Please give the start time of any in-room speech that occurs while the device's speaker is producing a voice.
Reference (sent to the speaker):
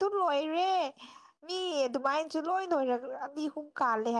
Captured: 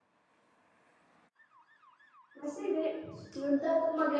2.4 s

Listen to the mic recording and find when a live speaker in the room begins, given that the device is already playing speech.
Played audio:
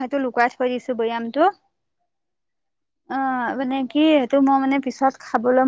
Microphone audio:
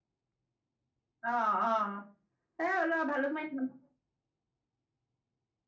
1.3 s

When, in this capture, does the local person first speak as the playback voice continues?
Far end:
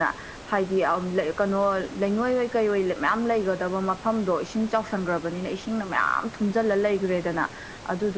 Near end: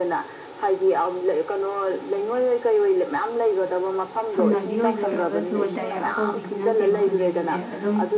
4.3 s

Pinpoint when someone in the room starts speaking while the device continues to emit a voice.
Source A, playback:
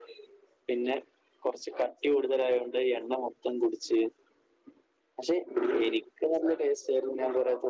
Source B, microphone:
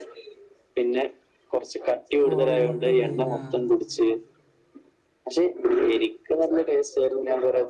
2.3 s

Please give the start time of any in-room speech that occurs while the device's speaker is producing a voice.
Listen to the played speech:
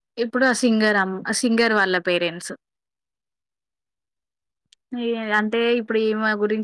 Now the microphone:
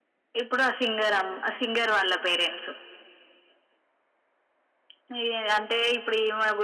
none

